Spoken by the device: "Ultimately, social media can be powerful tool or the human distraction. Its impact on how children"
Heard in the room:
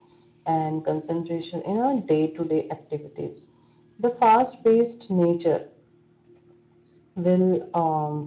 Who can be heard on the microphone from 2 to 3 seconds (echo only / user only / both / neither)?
user only